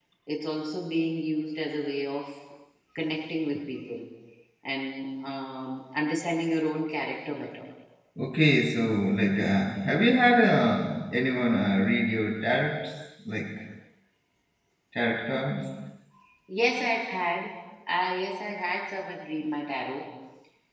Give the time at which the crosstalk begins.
none

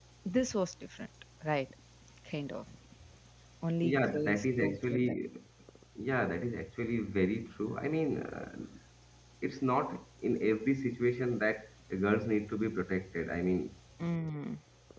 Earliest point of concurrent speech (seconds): 4 s

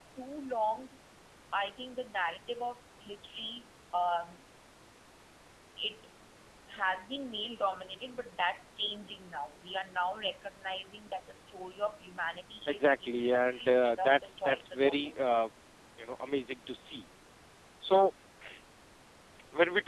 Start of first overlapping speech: 13 s

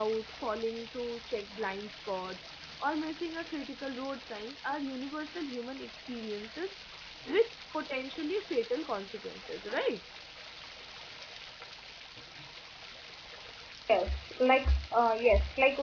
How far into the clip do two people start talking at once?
none

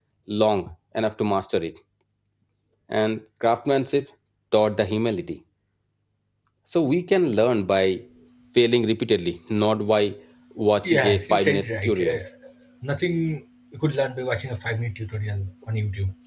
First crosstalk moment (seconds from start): 11 s

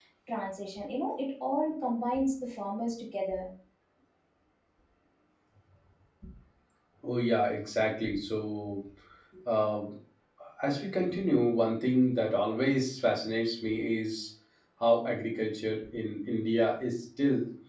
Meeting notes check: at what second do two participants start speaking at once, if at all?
none

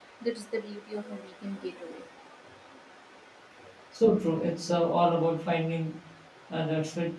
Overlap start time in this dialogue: none

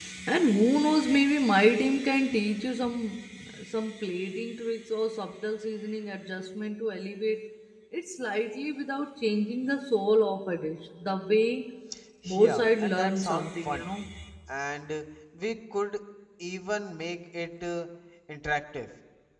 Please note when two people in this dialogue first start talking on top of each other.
12 s

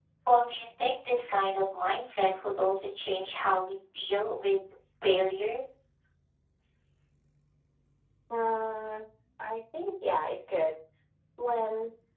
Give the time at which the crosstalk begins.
none

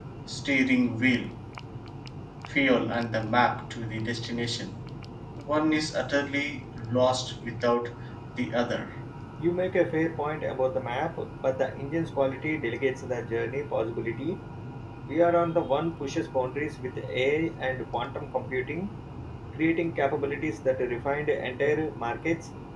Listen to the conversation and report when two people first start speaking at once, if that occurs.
none

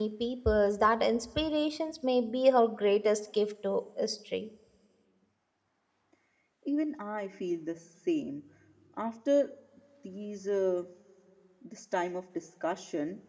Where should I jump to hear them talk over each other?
none

